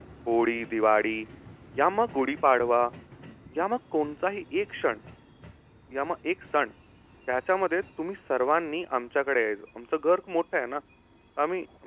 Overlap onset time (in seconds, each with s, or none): none